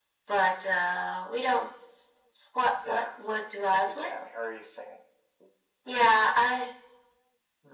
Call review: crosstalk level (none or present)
present